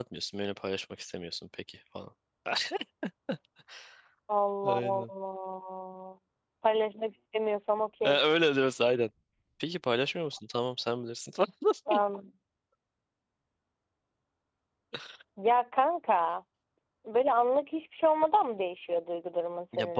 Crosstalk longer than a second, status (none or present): none